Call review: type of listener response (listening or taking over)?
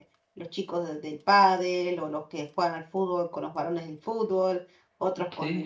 listening